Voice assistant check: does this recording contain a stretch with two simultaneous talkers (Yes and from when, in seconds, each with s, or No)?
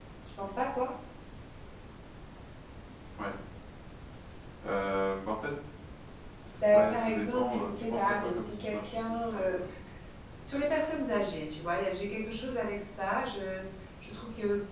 Yes, from 6.6 s